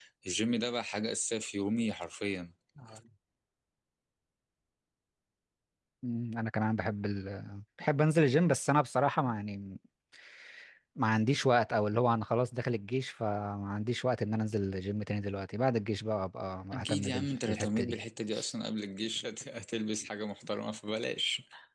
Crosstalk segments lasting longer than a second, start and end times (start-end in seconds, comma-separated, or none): 16.7-17.9